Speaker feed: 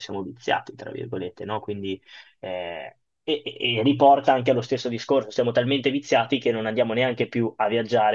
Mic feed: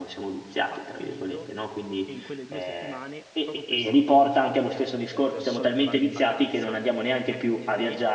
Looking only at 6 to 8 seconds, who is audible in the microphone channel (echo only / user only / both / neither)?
both